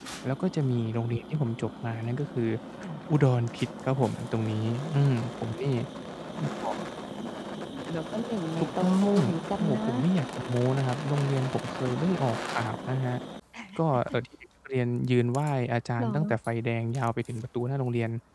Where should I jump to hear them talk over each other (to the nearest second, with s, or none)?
9 s